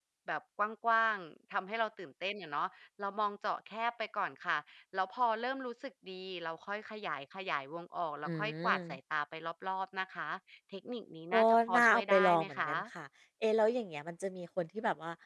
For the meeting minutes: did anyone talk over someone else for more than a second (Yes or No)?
Yes